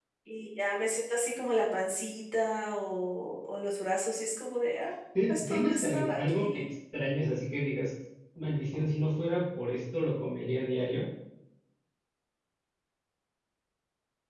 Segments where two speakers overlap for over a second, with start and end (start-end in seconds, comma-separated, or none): 5.3-6.6